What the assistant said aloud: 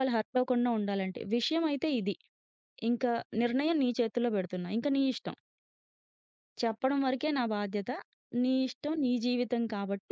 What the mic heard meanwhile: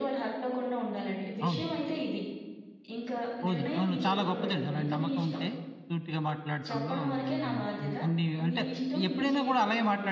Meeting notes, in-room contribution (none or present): present